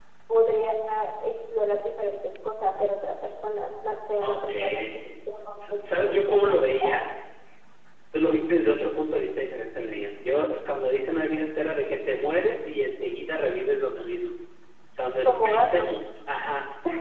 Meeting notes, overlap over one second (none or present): present